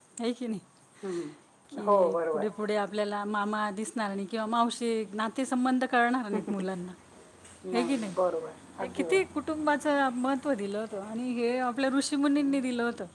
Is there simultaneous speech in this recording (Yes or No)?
Yes